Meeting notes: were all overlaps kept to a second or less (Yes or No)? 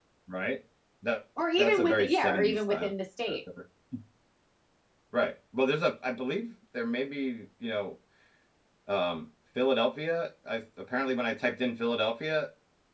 No